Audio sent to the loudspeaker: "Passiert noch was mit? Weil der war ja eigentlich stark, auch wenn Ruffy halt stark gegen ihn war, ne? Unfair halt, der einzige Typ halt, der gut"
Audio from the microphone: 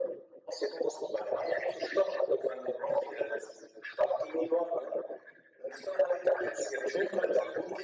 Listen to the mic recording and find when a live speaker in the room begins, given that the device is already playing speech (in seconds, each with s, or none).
none